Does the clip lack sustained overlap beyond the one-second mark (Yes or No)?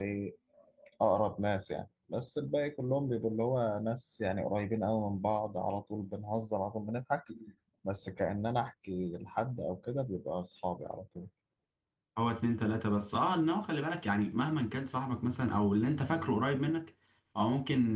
Yes